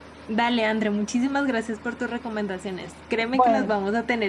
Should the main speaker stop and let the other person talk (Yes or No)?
No